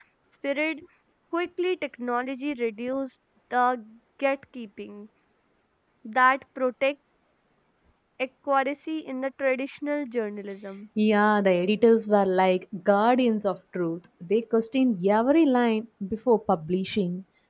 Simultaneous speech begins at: none

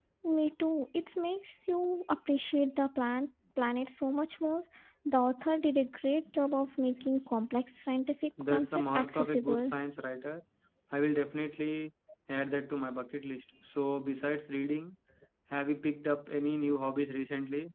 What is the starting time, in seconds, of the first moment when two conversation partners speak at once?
8 s

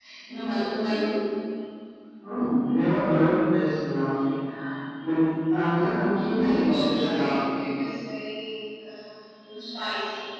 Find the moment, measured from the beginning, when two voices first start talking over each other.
6 s

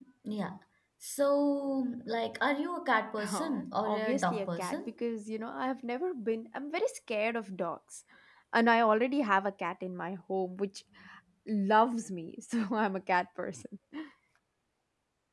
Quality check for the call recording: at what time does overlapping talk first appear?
3 s

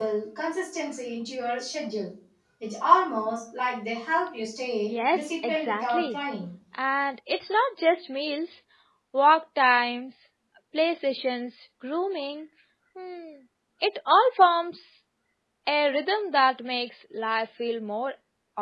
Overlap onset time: 5 s

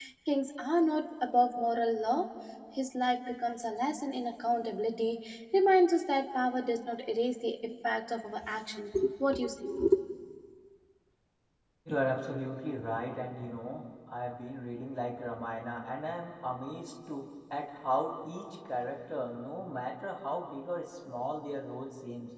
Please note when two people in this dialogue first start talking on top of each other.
none

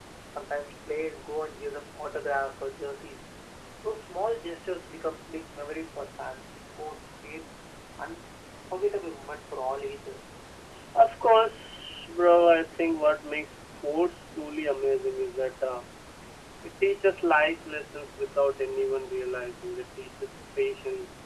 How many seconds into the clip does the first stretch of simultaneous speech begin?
none

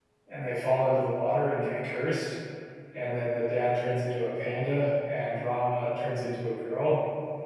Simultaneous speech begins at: none

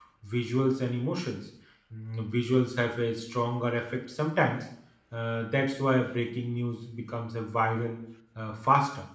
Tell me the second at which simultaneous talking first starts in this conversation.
none

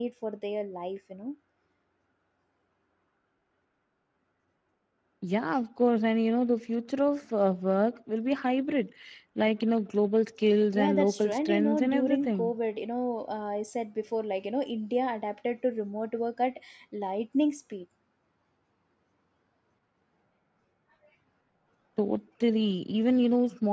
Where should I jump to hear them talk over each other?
11 s

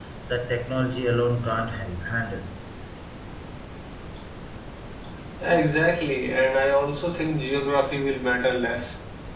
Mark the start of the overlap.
none

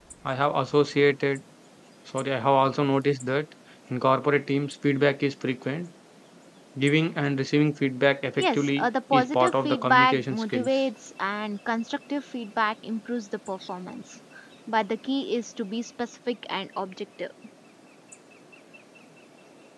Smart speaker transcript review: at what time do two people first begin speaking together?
8 s

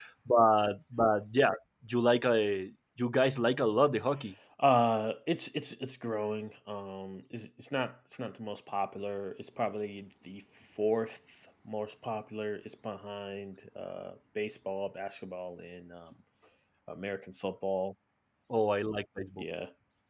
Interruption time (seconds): none

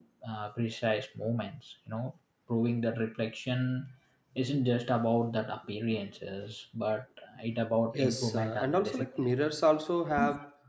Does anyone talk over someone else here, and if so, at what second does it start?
8 s

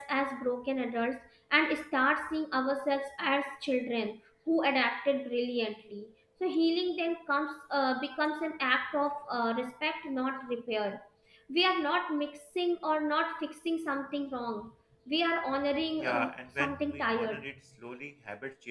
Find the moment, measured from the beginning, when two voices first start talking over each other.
16 s

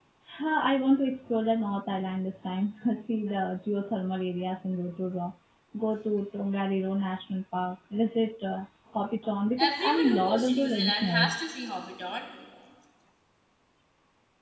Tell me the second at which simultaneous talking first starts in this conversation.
10 s

